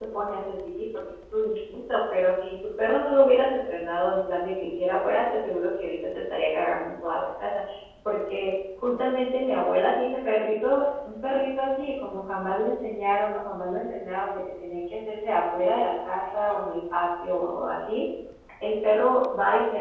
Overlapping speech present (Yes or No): No